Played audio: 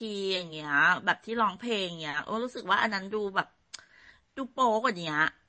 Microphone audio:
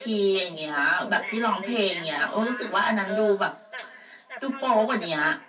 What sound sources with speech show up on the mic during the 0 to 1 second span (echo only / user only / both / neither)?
both